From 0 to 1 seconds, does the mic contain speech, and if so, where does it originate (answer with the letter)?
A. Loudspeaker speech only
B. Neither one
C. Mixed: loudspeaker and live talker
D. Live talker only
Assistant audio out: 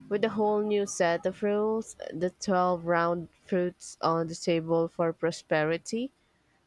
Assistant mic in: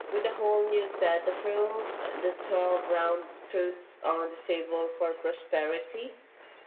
A